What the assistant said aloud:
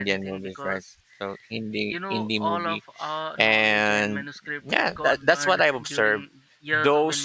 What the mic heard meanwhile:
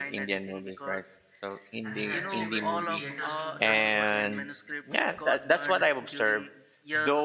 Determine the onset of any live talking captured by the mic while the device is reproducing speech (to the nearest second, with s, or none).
2 s